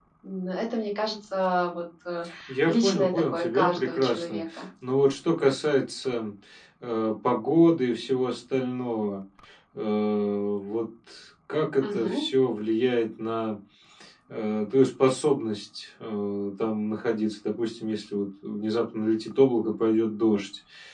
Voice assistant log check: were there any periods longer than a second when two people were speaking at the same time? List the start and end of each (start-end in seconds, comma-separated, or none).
2.7-4.6